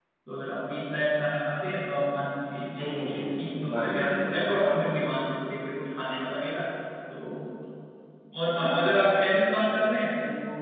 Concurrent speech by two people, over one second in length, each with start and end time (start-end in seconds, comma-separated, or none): 2.8-4.9